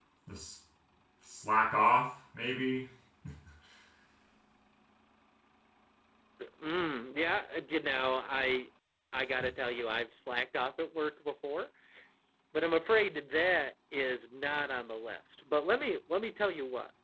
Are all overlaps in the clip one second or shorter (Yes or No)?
Yes